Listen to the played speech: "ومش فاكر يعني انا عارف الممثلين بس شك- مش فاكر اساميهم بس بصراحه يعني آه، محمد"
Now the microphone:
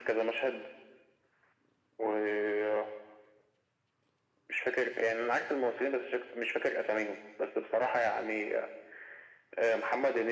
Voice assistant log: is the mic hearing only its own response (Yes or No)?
Yes